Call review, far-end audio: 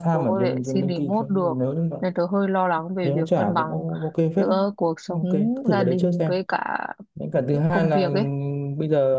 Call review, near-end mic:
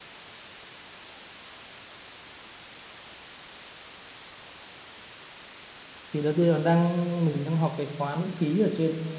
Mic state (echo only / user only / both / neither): user only